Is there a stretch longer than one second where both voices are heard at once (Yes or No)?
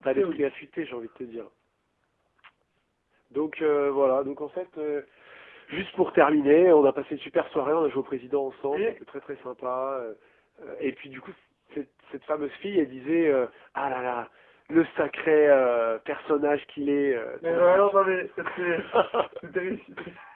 No